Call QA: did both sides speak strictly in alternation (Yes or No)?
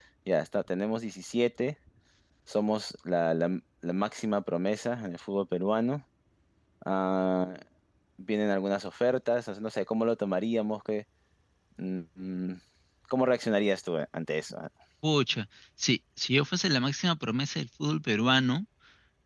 Yes